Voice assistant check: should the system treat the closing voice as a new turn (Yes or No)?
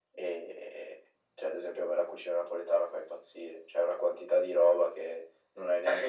Yes